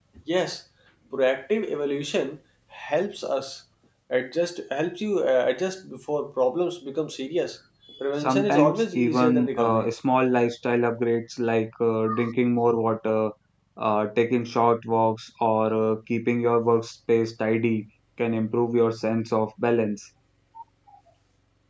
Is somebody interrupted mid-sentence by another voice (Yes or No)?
Yes